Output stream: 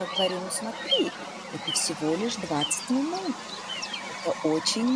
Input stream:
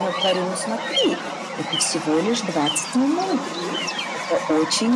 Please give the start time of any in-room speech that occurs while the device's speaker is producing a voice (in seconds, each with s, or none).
3.2 s